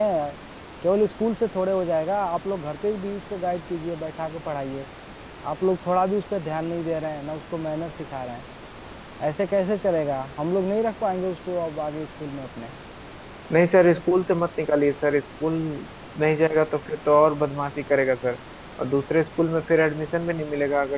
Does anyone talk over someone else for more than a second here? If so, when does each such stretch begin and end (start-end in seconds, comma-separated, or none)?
none